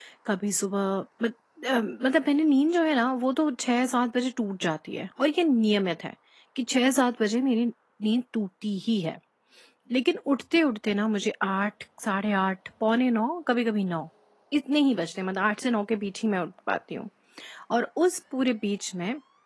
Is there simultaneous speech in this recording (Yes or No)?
No